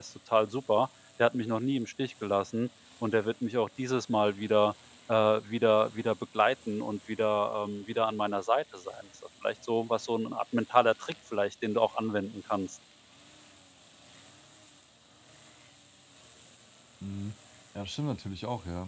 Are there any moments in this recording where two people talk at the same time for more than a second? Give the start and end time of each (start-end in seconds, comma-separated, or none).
none